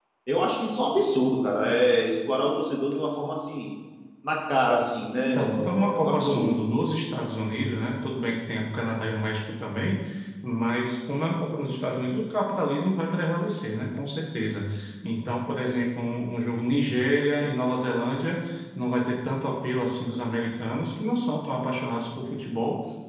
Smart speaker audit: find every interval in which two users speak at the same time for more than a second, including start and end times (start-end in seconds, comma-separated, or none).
5.2-6.5